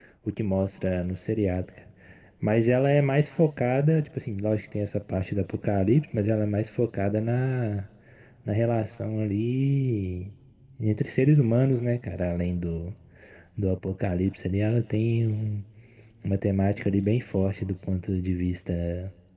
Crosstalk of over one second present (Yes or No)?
No